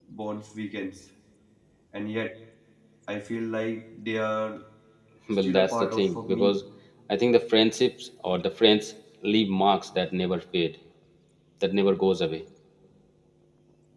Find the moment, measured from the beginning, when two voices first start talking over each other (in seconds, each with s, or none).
5.3 s